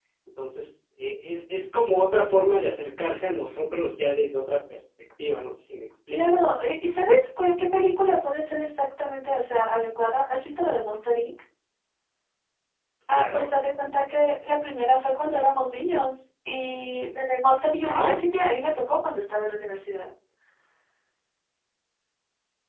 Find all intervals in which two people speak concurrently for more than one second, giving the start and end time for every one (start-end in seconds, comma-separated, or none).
none